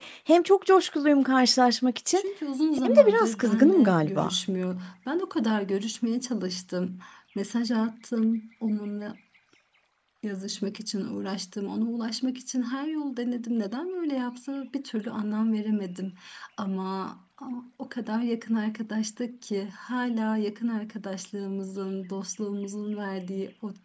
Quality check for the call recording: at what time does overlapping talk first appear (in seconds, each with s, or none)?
2.8 s